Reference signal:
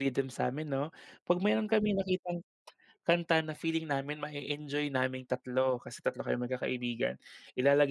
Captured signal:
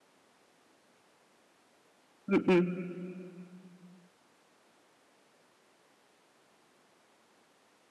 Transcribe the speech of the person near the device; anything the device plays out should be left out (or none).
Mm.